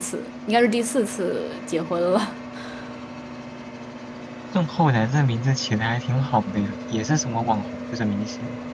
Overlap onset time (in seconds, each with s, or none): none